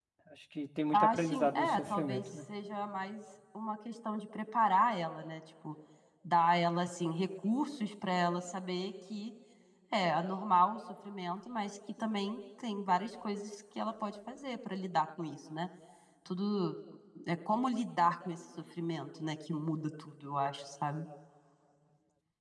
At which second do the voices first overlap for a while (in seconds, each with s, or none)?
0.9 s